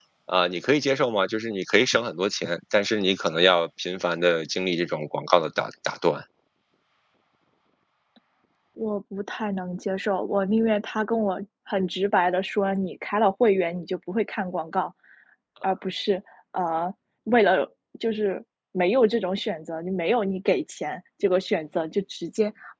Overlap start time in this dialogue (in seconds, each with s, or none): none